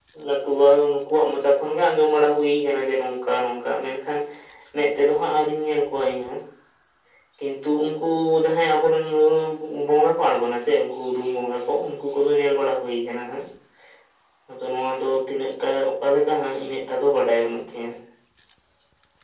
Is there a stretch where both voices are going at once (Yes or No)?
No